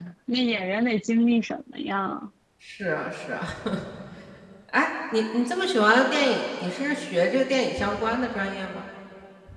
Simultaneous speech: No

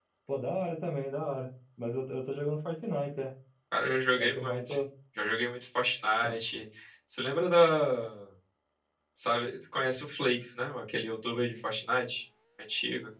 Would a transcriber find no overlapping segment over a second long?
Yes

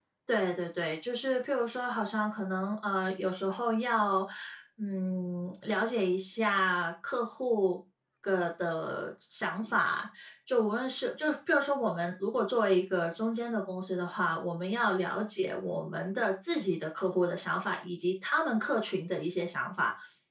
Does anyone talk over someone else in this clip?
No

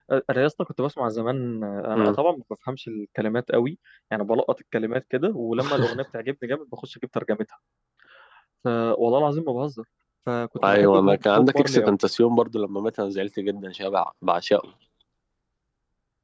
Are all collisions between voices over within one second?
No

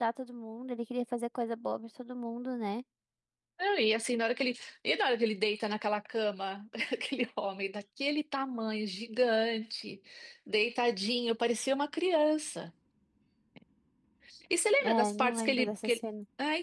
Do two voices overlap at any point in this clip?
Yes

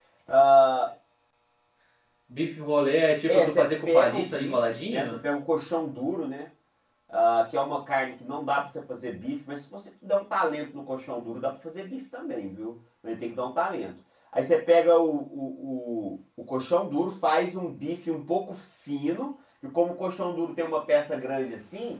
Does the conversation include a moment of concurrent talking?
Yes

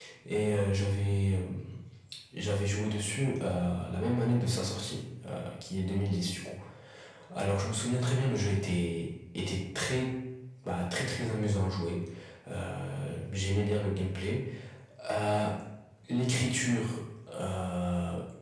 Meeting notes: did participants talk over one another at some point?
No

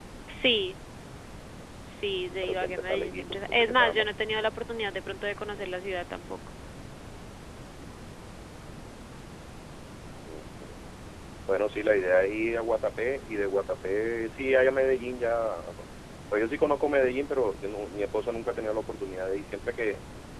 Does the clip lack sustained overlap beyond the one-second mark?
No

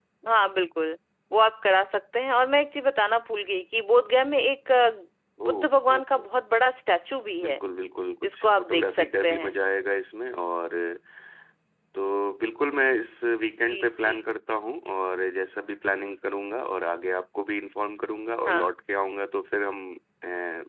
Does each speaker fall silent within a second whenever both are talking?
No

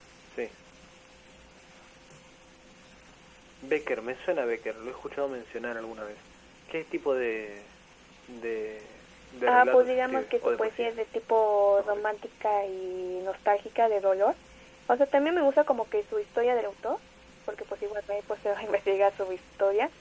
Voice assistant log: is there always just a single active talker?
No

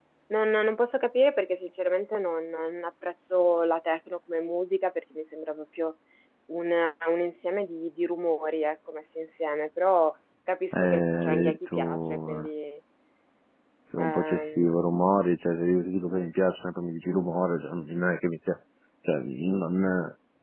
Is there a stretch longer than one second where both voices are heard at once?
Yes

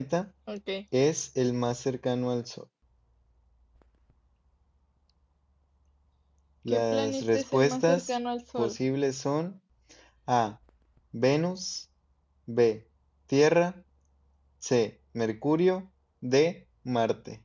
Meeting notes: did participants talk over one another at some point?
Yes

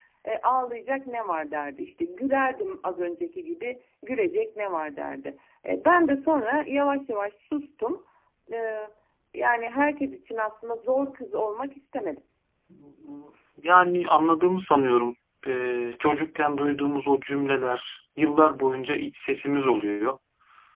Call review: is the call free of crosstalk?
Yes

